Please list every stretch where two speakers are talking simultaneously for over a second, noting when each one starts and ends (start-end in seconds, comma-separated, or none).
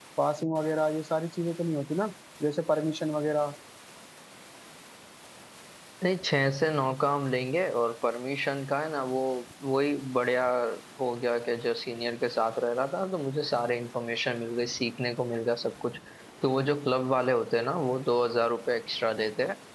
none